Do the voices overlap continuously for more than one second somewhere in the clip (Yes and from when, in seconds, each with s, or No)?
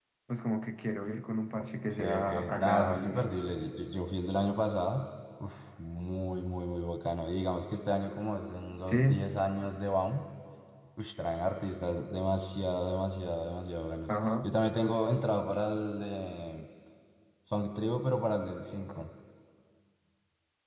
Yes, from 1.9 s